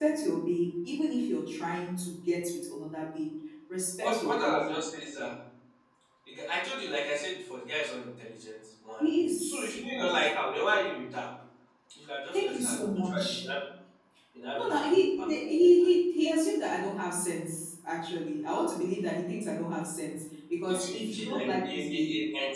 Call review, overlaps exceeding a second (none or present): present